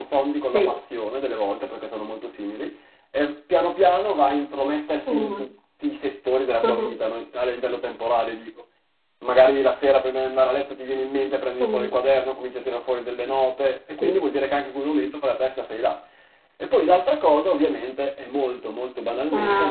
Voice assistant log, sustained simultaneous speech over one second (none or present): none